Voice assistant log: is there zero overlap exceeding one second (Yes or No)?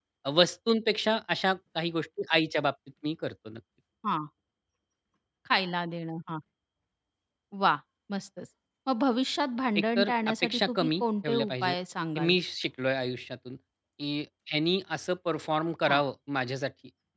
No